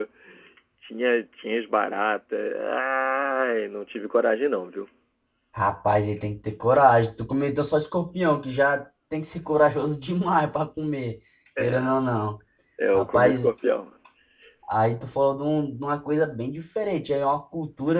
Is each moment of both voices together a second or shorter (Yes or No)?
Yes